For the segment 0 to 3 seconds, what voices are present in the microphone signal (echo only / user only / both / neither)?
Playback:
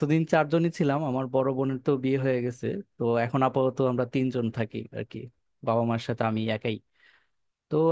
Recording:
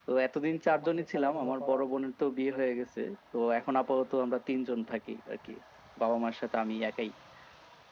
both